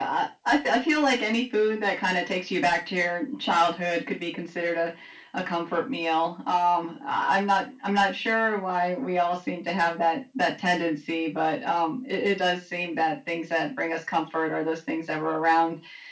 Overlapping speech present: No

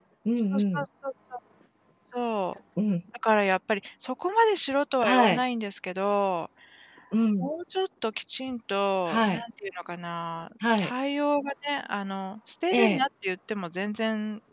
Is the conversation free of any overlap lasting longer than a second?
Yes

